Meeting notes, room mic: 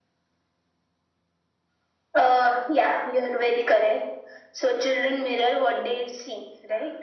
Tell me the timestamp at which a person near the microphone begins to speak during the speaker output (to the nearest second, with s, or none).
none